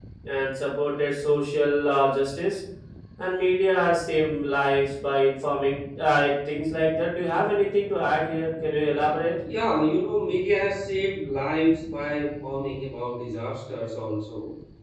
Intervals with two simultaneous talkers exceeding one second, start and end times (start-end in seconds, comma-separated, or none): none